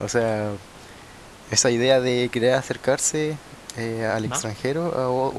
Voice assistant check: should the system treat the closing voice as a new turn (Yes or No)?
No